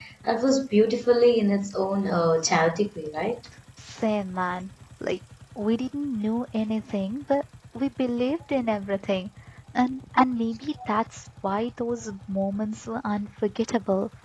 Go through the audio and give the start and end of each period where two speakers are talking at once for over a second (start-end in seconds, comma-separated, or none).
none